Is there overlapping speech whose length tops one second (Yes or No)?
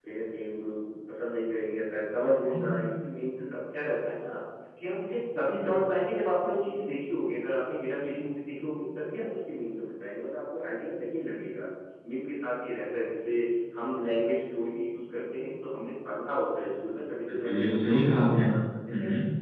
Yes